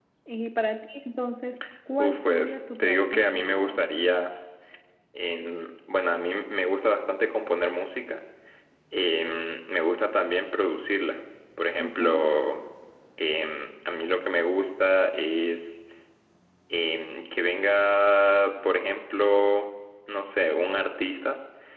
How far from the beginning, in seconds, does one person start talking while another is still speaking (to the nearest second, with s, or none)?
2 s